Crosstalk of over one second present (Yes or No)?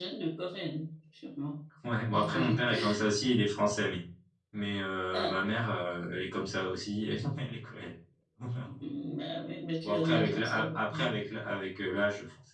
Yes